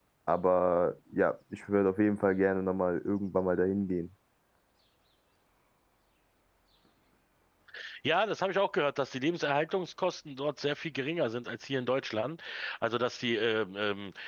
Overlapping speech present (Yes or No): No